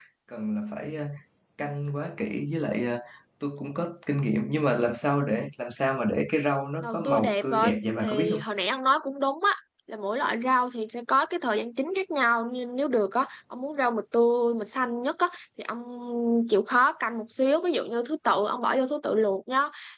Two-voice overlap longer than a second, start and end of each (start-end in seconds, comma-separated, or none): 6.8-8.4